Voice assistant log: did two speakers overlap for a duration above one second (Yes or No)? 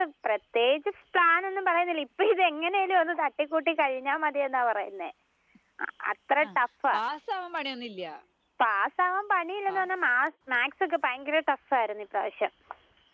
No